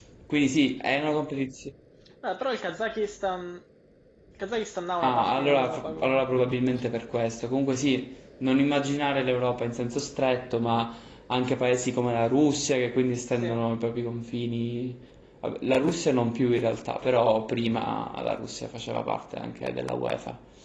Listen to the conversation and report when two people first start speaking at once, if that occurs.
5.0 s

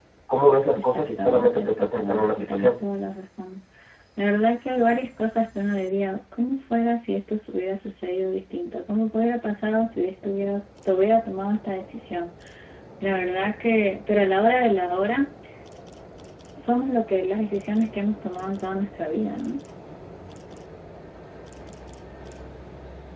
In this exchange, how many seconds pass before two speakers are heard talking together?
0.8 s

